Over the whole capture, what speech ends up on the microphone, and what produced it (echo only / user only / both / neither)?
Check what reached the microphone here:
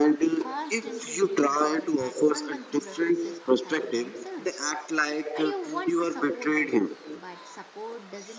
both